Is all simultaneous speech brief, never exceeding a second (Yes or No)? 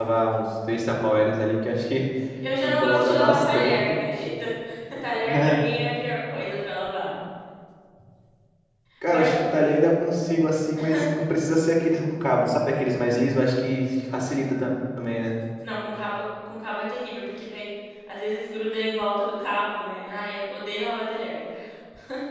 No